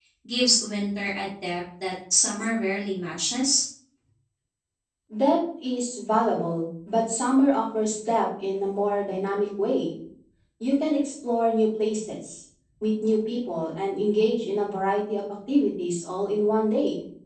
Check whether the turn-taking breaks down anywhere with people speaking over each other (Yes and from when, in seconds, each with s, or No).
No